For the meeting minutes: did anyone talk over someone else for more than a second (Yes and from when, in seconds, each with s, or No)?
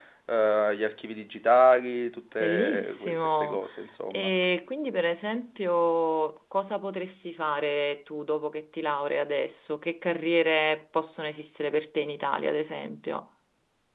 Yes, from 2.4 s